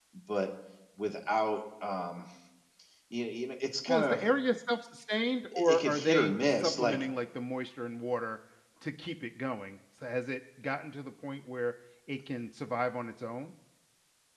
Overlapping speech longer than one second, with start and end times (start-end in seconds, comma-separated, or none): 5.5-7.1